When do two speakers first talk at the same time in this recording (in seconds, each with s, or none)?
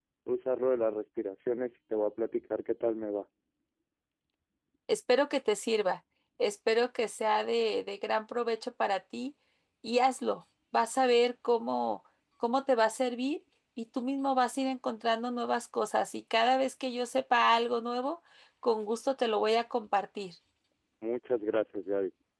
none